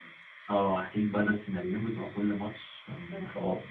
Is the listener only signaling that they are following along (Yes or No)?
Yes